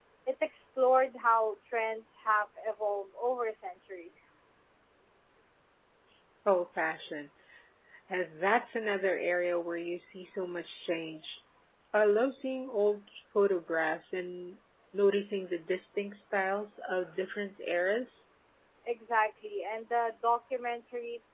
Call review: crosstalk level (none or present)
none